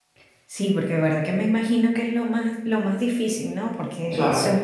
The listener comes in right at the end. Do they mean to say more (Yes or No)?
No